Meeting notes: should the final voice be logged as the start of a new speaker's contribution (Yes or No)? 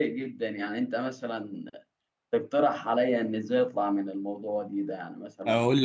Yes